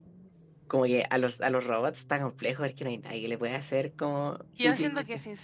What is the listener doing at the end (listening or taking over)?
taking over